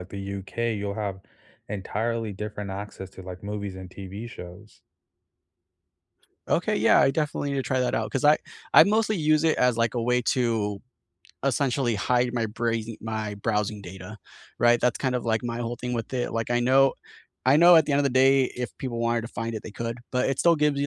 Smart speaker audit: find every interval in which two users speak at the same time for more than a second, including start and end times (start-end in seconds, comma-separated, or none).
none